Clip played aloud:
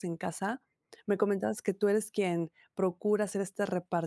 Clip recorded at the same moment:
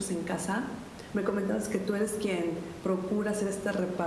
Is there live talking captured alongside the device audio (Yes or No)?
No